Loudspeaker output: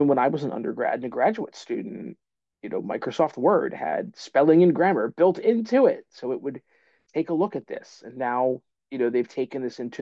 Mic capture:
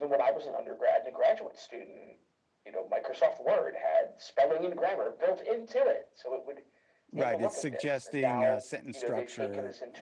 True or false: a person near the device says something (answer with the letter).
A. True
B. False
A